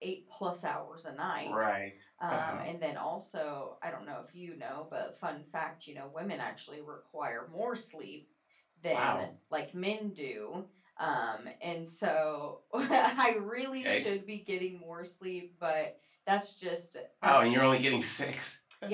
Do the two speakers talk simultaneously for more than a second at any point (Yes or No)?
No